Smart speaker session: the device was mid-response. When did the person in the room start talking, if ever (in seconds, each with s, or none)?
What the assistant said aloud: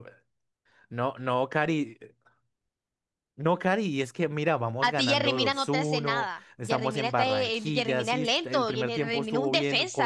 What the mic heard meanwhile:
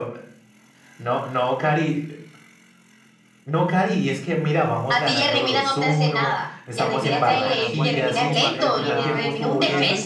6.9 s